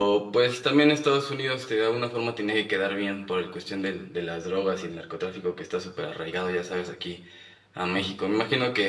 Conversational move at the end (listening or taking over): listening